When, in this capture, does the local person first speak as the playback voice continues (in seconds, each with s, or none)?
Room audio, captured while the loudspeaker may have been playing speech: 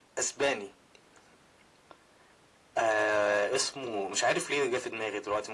none